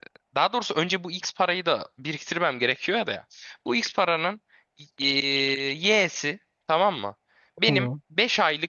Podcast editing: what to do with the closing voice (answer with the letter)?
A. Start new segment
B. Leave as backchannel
B